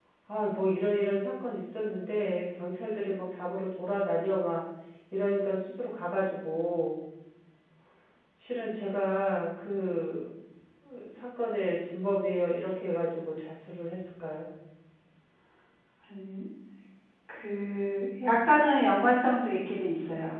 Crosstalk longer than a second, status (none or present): none